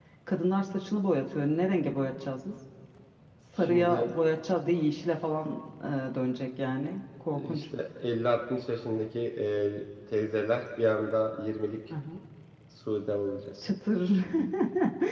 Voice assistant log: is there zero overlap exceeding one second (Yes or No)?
Yes